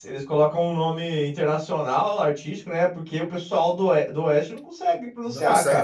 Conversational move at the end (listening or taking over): taking over